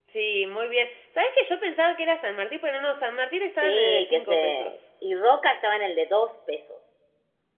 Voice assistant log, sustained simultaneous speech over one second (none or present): present